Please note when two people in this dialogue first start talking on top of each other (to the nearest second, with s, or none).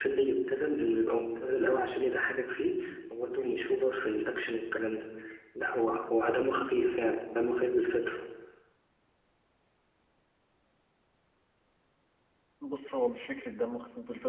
none